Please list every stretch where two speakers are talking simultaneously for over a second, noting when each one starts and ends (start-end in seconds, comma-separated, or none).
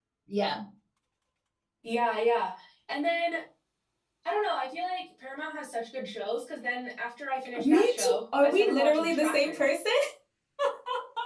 7.6-9.6